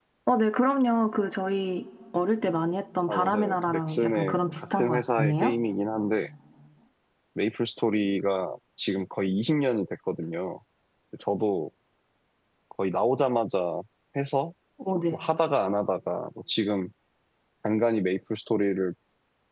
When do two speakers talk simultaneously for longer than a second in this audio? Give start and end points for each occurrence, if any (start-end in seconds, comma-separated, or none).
3.1-5.6